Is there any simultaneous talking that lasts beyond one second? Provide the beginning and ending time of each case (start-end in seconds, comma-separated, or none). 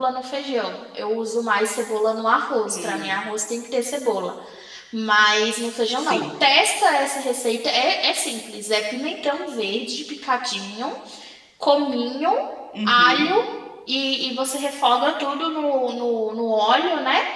none